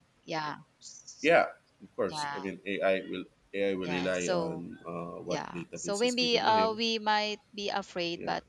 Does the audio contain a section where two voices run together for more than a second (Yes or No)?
Yes